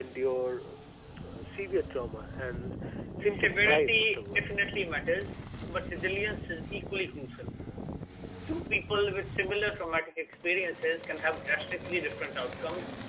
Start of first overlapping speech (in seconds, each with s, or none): 3.2 s